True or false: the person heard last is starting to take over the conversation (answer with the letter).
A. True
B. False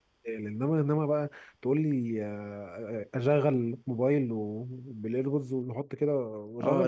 A